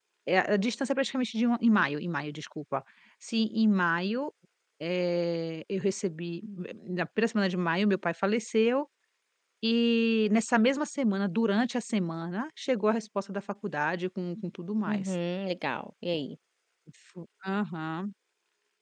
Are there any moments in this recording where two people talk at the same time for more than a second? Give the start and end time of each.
none

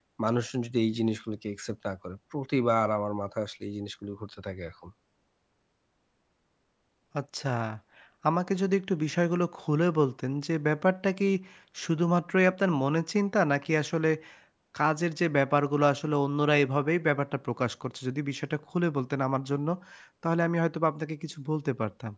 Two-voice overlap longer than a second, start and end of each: none

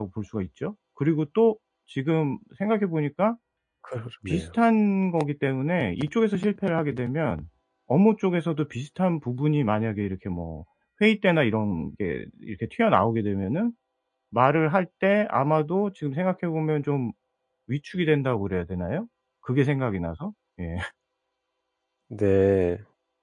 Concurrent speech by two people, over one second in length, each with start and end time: none

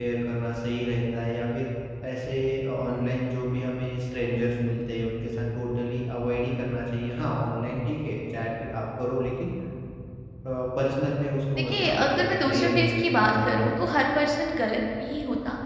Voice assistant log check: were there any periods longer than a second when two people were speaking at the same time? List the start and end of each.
11.6-13.7

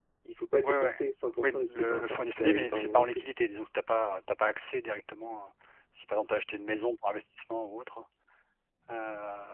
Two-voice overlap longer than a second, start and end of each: 1.4-3.2

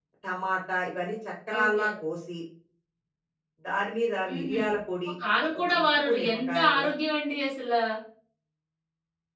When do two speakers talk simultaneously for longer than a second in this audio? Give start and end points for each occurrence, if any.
5.6-6.9

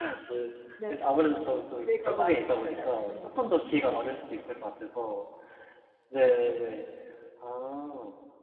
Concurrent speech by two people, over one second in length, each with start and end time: 1.8-3.6

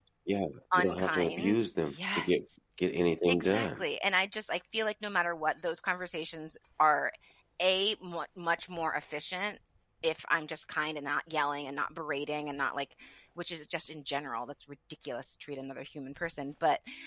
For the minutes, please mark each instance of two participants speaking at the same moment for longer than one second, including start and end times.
0.8-2.4

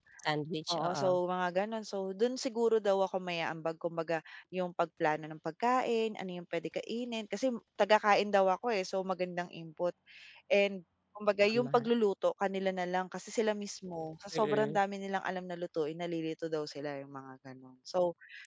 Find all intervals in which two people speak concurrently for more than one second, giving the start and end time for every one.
none

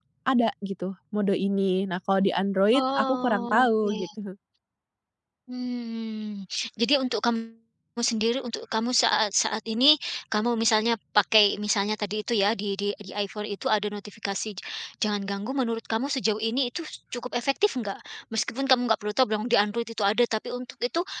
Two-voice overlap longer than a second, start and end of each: 2.7-4.0

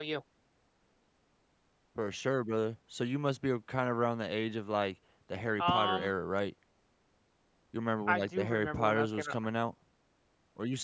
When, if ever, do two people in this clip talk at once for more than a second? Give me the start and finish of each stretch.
8.1-9.4

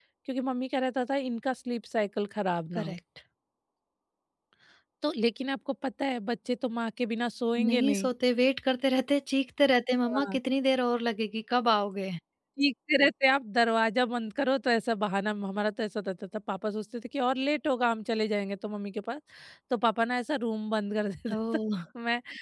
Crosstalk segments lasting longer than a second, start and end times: none

